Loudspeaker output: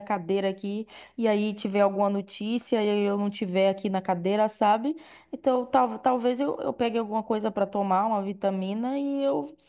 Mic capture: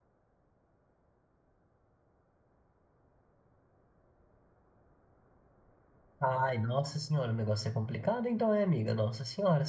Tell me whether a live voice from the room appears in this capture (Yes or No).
Yes